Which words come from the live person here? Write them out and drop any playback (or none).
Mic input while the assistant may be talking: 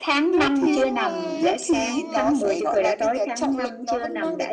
đúng rồi đúng rồi